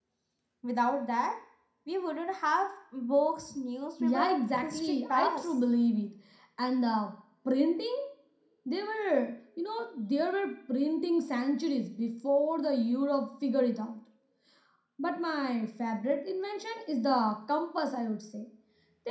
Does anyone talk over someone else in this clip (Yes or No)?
Yes